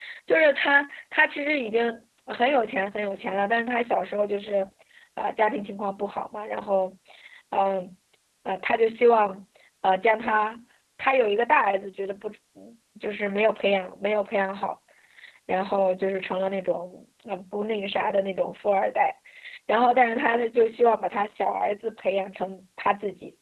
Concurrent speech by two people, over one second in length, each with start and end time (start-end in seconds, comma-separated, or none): none